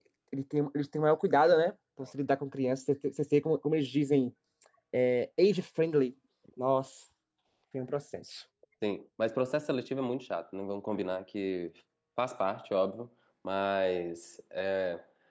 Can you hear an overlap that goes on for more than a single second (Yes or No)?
No